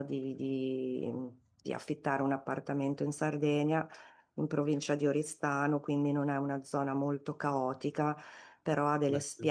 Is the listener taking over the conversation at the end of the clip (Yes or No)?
No